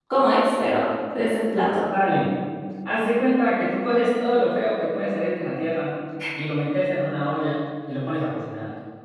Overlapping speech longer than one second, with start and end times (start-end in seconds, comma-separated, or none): none